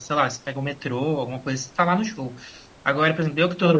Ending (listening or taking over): listening